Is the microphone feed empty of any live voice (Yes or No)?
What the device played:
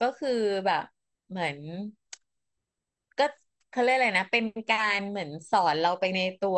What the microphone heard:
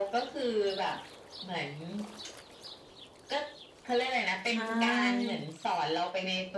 No